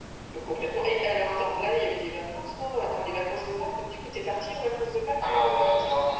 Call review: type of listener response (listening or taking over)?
taking over